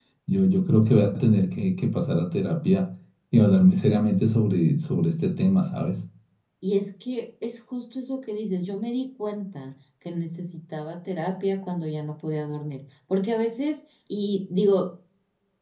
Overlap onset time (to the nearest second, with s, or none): none